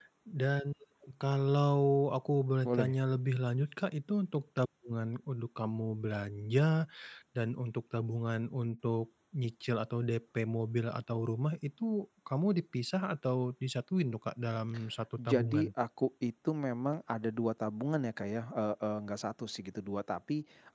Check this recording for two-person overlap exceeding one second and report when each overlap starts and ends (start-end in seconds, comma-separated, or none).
none